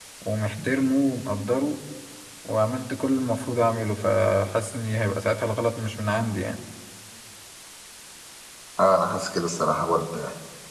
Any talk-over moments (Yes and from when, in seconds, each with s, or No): No